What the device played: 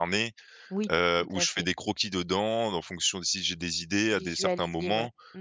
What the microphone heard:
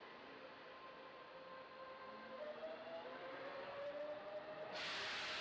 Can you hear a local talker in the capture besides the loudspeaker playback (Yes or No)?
No